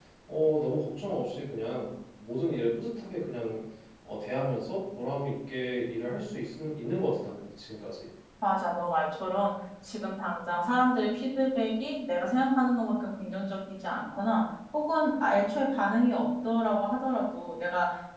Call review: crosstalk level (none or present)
none